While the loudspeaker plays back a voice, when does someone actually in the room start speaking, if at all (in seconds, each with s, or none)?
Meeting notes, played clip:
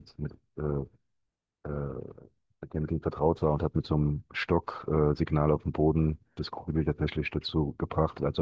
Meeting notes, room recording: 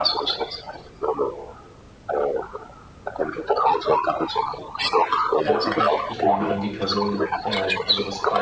5.4 s